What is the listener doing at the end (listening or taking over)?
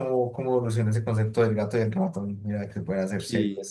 taking over